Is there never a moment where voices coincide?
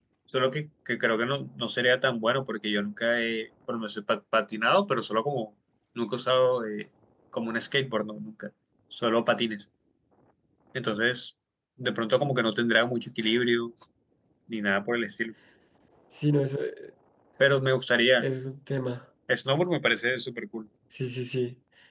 Yes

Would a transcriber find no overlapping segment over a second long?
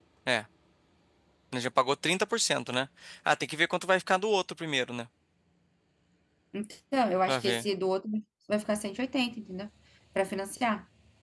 Yes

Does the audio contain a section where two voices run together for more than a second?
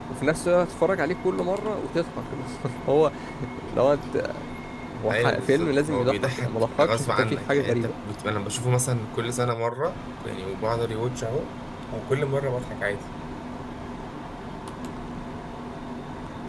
Yes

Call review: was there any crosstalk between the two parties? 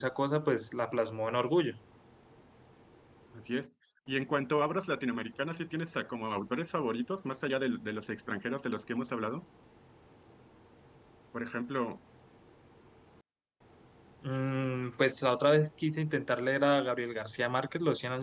No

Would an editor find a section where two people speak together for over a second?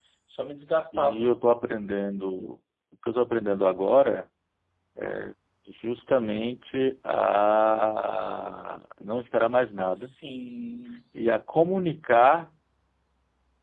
No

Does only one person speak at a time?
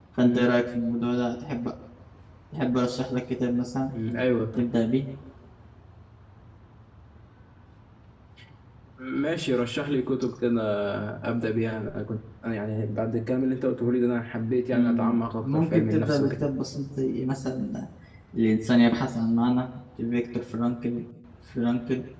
No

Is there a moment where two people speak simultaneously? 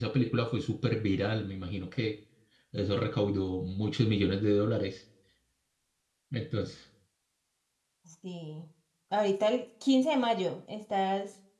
No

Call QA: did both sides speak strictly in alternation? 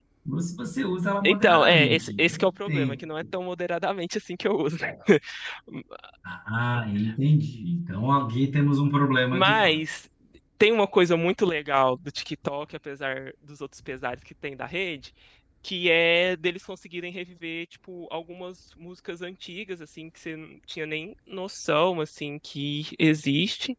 No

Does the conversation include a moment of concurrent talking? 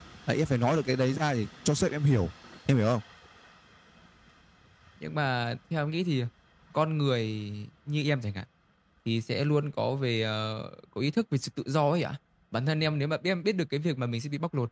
No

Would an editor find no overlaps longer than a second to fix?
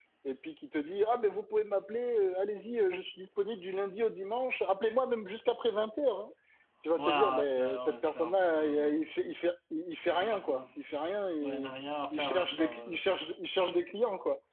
No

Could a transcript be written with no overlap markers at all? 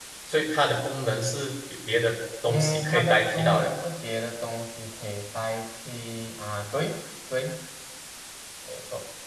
No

